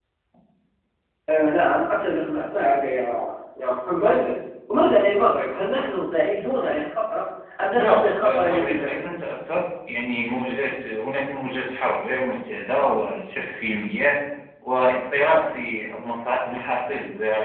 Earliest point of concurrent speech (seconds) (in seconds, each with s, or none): 7.7 s